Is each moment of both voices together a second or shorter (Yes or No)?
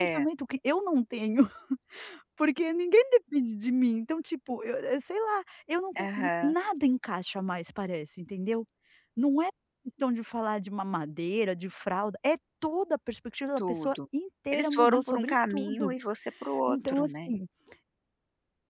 No